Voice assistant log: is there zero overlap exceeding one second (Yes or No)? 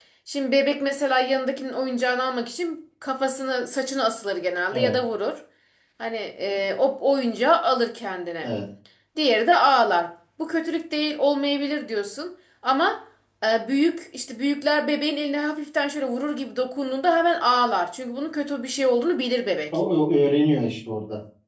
Yes